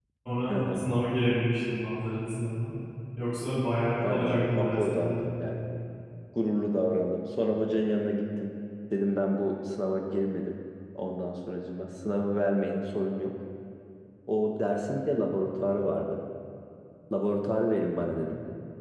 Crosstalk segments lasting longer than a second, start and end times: 4.0-5.3

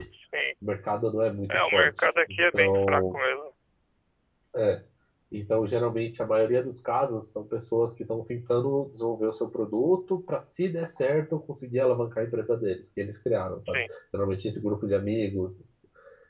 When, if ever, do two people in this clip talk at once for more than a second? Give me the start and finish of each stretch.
1.5-3.2

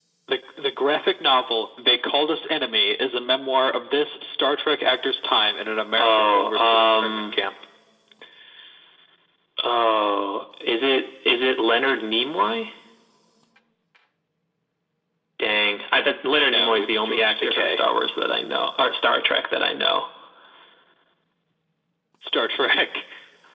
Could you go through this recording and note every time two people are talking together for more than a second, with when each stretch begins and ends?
6.0-7.4, 16.4-17.8

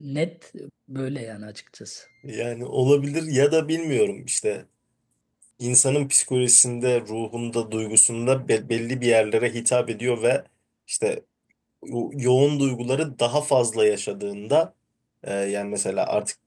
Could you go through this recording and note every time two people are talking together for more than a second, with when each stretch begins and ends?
none

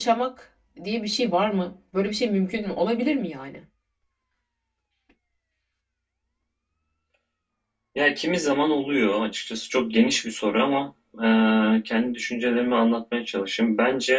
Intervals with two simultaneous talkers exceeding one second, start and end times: none

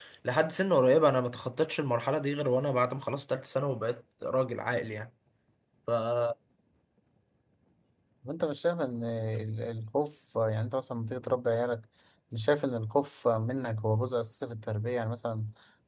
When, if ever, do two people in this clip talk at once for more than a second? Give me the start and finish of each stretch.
none

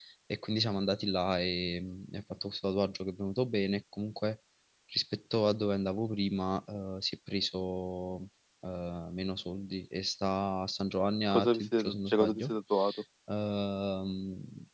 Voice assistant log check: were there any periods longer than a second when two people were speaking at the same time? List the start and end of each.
11.3-12.6

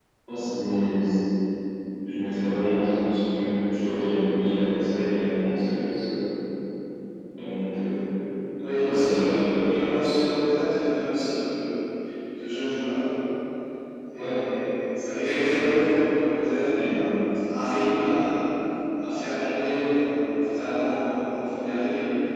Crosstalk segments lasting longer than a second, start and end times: 8.7-10.0

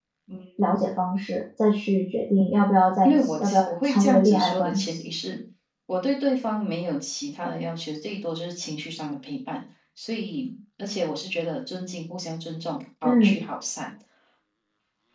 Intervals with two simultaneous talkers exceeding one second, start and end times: 3.0-5.1

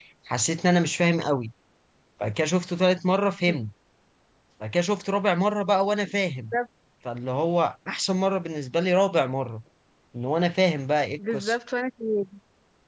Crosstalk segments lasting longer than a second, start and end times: none

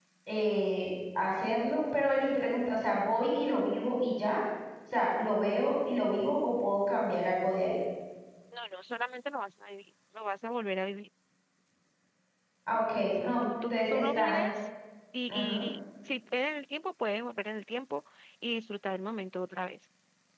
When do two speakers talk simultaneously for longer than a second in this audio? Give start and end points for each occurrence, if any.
13.2-14.5

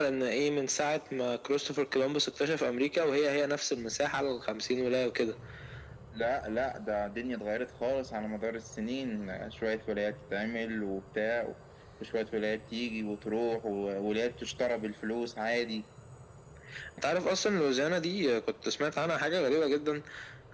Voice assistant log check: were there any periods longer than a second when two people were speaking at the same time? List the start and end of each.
none

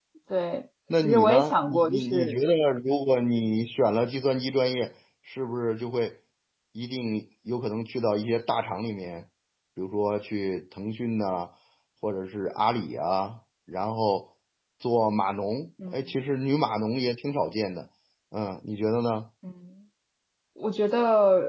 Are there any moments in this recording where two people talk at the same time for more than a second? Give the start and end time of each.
1.0-2.4

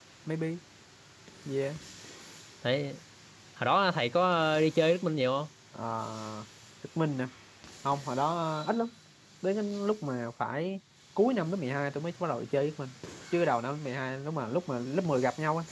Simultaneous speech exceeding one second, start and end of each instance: none

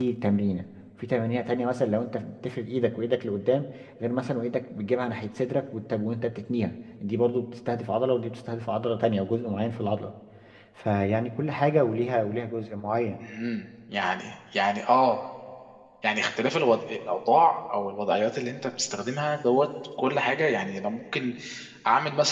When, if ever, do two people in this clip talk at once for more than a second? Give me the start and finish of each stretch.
none

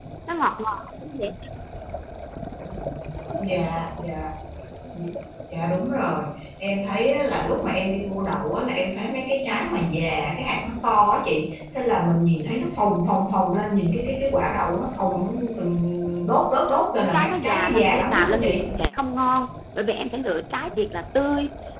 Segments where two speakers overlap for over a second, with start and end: 16.9-18.7

